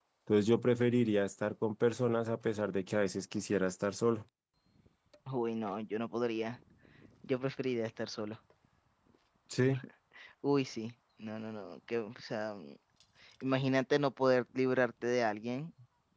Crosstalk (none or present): none